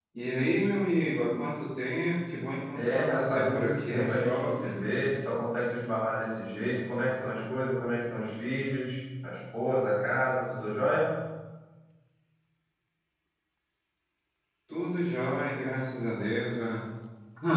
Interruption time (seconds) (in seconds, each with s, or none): 2.7 s